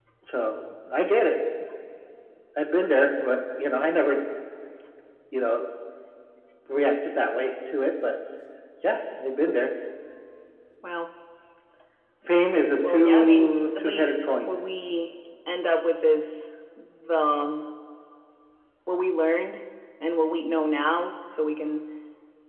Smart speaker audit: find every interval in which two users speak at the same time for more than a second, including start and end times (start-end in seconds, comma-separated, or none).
12.8-14.5